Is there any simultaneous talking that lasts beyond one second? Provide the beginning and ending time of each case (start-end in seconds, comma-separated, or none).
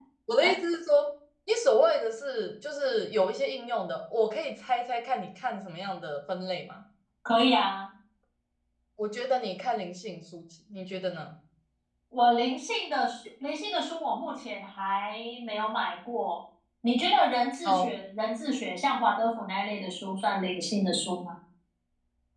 none